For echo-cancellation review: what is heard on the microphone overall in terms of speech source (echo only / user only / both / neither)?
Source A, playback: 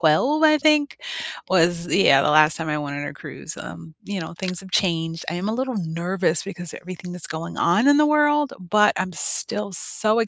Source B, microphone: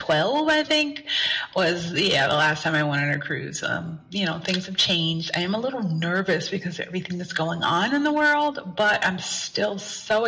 echo only